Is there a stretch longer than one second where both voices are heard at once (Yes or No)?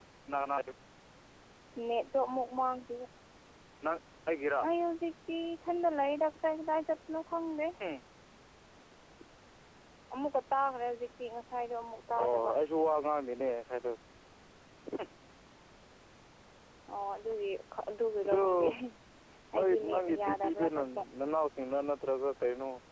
Yes